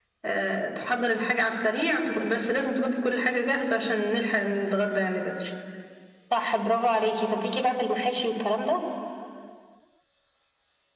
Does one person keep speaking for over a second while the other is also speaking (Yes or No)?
No